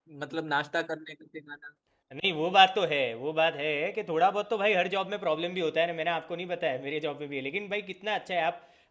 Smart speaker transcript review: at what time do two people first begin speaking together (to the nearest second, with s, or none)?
none